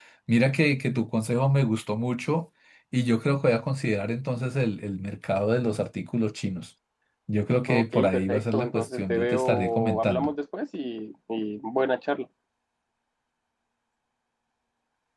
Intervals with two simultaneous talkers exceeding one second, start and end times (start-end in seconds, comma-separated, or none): 7.7-10.3